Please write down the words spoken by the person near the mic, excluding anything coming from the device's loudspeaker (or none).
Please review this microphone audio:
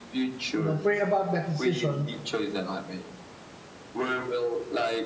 you know, pray about that decision